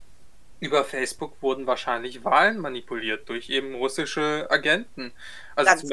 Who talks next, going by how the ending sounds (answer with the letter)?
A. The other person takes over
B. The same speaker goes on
B